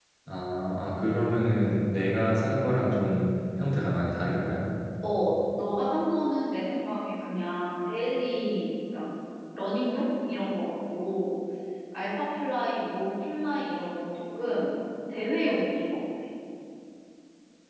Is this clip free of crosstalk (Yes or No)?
Yes